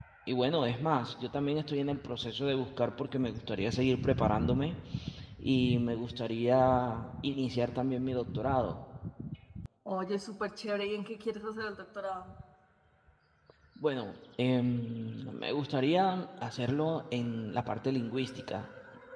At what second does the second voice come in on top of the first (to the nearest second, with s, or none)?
none